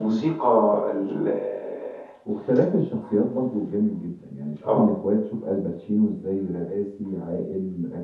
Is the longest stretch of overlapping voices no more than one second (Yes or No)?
Yes